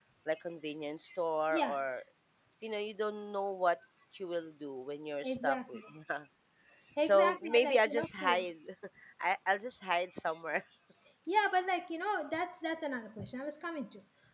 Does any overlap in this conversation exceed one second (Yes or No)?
Yes